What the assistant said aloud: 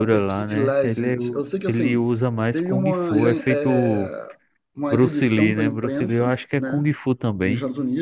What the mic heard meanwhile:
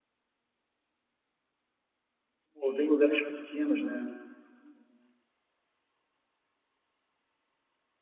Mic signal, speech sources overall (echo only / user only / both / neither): user only